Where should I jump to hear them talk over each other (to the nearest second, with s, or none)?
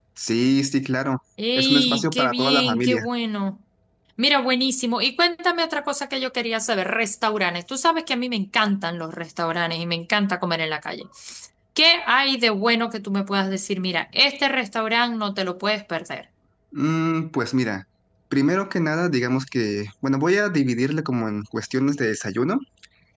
2 s